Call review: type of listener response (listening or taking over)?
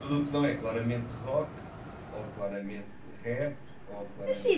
taking over